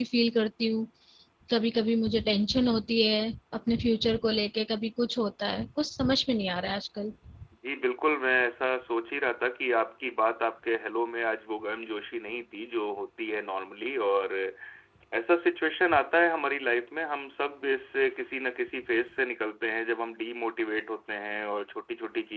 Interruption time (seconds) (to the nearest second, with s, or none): none